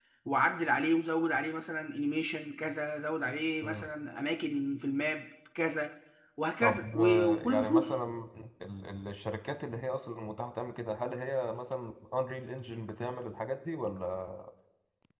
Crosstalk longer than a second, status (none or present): present